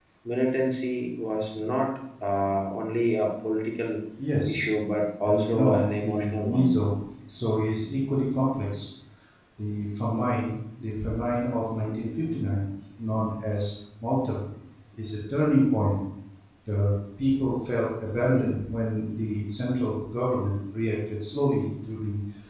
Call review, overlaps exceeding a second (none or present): present